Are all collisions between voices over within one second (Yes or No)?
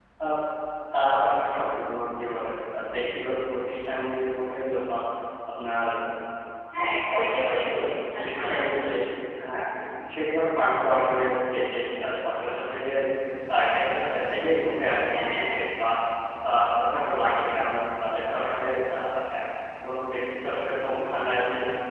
No